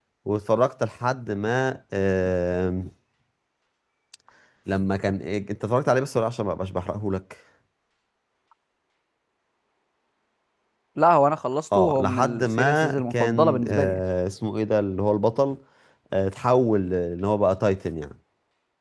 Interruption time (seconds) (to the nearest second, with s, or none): 12 s